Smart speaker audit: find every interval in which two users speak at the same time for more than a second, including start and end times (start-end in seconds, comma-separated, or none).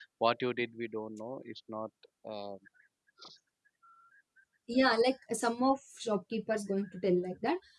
none